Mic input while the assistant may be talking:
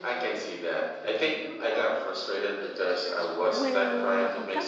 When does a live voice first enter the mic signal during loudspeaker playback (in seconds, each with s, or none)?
3.5 s